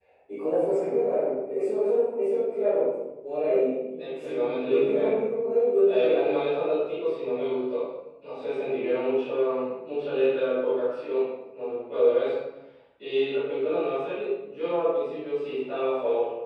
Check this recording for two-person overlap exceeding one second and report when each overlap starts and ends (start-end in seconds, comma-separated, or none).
4.0-5.2